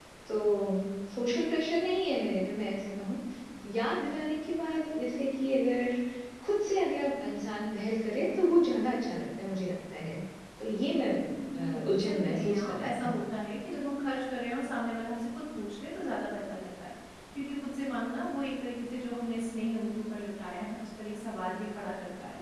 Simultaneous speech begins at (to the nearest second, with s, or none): 12 s